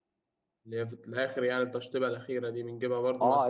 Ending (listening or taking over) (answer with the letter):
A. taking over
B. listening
A